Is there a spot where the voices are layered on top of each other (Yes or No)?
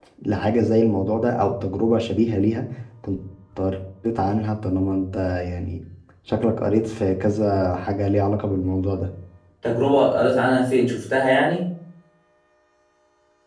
No